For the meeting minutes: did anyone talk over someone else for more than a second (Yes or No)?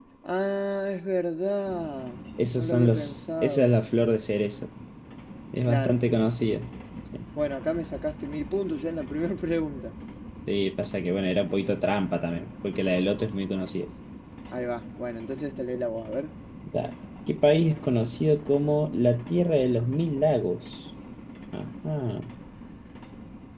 Yes